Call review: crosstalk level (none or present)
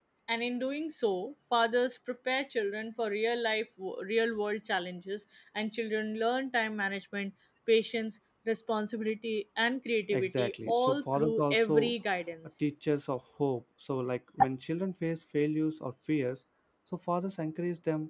present